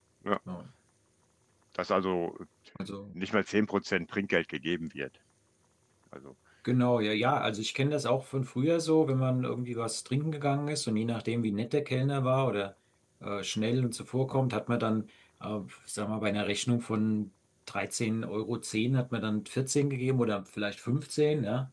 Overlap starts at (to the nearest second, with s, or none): none